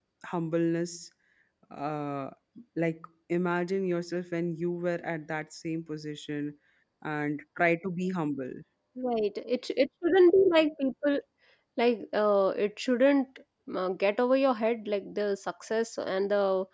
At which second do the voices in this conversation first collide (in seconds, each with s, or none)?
none